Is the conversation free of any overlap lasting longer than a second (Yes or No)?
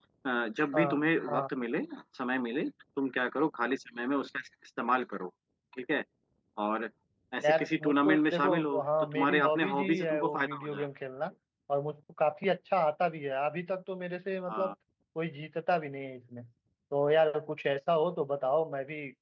No